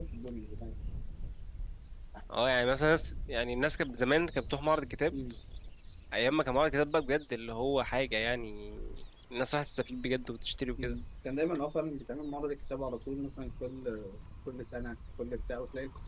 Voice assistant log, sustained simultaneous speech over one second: none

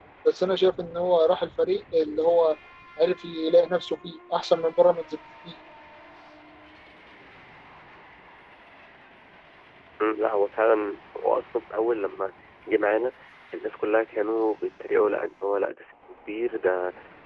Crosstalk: none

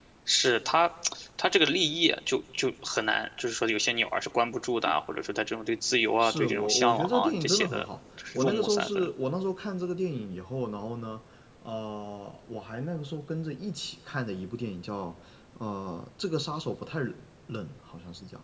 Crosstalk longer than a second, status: present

